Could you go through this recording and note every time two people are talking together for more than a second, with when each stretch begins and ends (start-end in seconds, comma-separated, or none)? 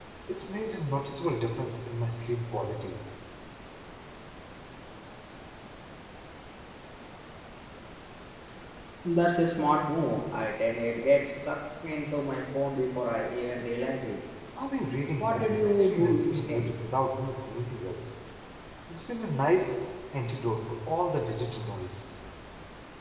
15.2-16.7